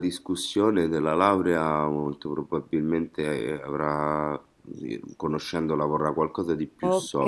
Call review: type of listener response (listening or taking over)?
taking over